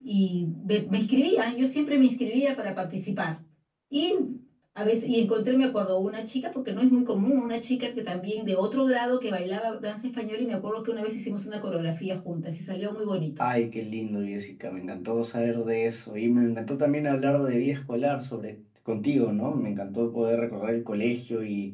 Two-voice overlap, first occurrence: none

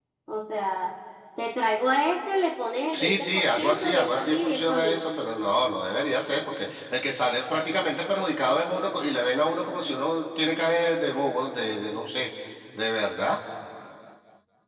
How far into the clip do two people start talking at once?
2.9 s

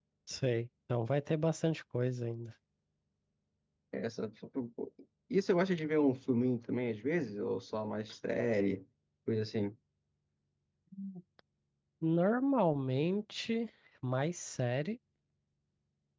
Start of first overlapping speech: none

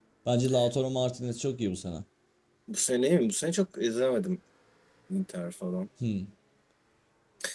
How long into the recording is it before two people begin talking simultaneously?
none

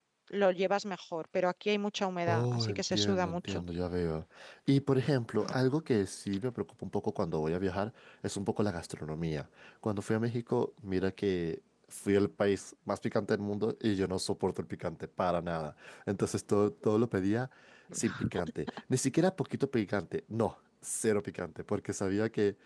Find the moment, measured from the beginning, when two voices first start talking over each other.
2.3 s

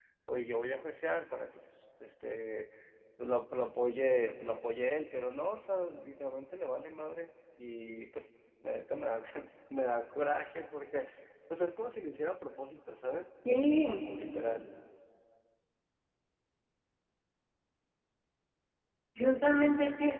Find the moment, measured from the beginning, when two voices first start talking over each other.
none

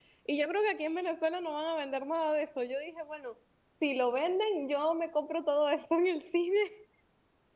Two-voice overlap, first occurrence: none

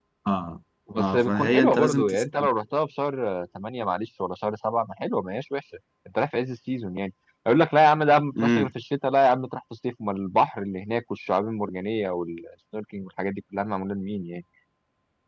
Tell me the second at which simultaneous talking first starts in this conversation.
1.0 s

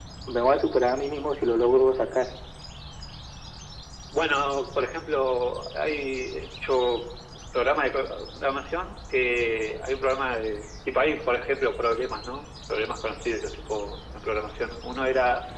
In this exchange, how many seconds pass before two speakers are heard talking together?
none

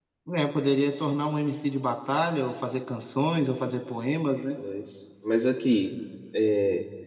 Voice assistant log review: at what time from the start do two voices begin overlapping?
none

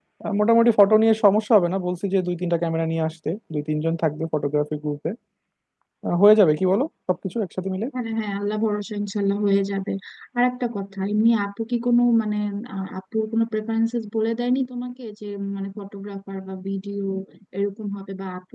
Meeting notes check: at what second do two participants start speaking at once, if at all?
none

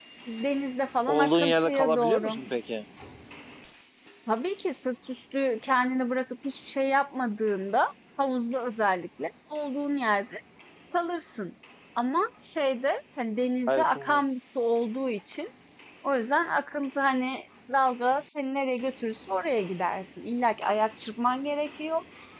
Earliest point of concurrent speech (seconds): 1.1 s

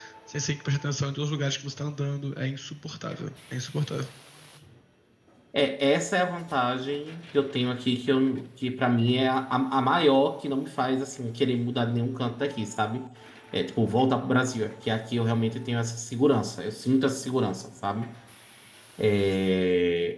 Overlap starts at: none

